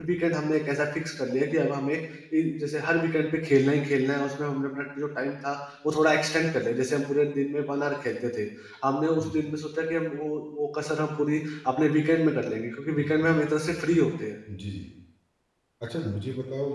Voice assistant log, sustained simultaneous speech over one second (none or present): none